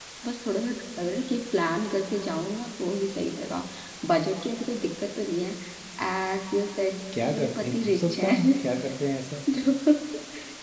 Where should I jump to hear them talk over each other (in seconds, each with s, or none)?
7.1 s